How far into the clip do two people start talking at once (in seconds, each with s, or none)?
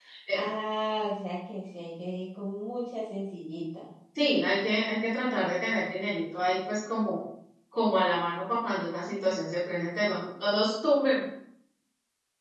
none